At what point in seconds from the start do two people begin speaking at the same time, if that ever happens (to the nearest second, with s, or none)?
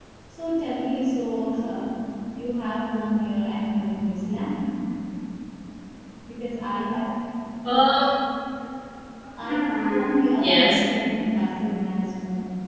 9 s